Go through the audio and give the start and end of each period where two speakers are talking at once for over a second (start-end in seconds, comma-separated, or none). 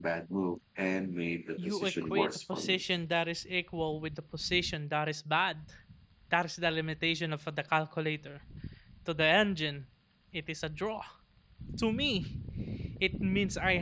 1.6-2.8